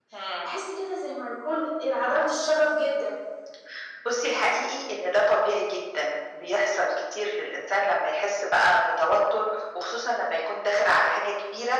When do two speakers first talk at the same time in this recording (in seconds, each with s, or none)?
none